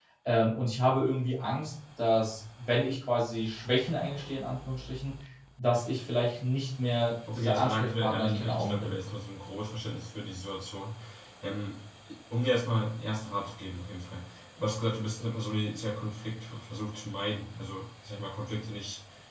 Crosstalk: present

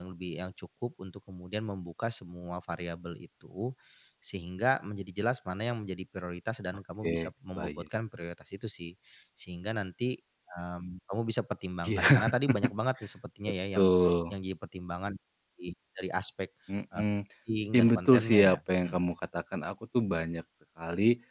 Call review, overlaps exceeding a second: present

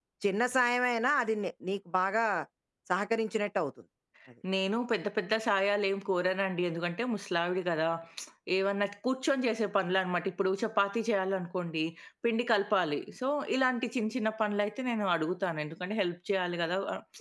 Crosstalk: none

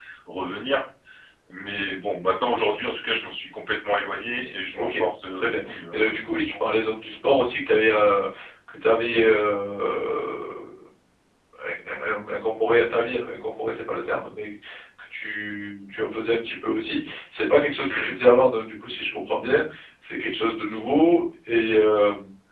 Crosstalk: present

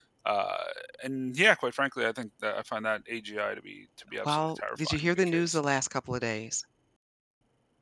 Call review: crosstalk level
present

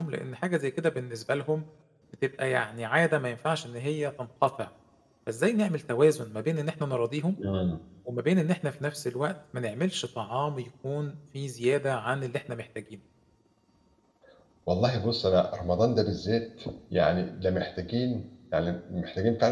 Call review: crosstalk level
none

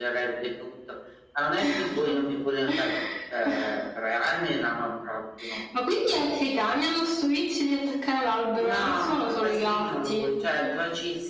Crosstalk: present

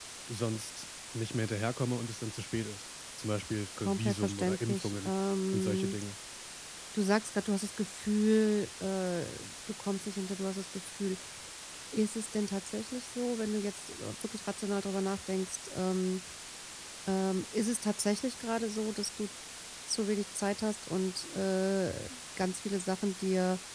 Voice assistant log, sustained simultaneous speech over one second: present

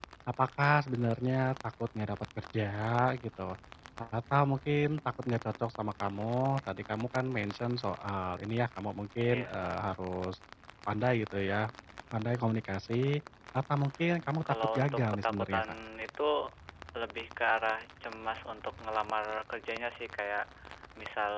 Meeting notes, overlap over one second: present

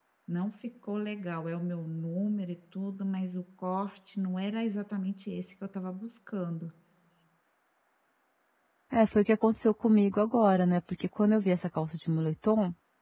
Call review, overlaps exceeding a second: none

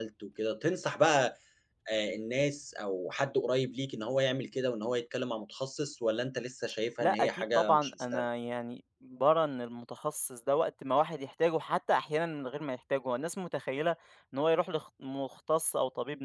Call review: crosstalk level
present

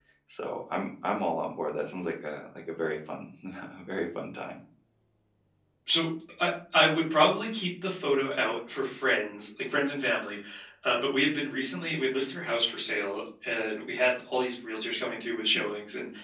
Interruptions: none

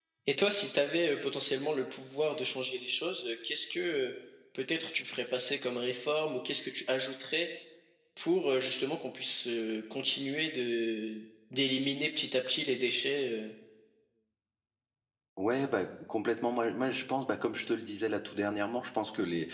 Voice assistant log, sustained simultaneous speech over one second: none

